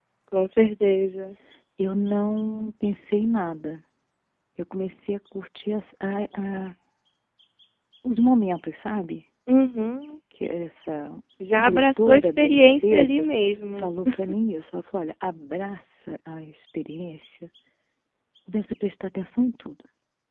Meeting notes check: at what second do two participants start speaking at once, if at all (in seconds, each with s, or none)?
11.6 s